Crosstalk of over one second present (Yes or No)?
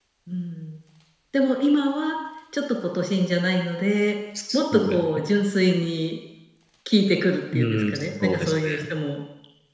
Yes